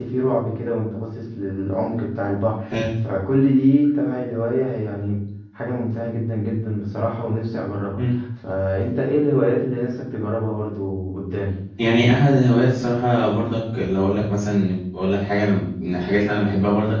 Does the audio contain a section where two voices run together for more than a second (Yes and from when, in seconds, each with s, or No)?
No